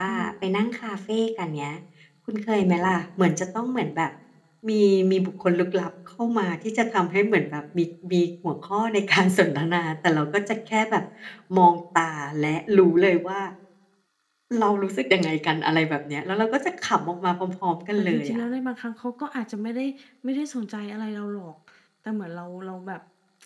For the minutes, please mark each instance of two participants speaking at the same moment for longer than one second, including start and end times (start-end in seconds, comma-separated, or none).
none